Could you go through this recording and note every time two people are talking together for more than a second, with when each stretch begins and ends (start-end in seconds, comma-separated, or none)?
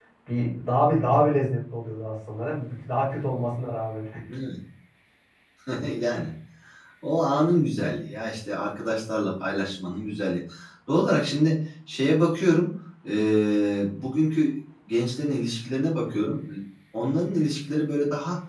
none